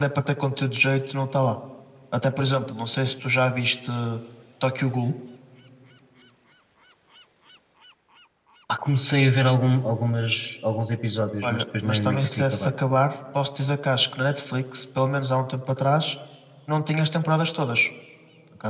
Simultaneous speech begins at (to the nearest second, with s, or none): 11 s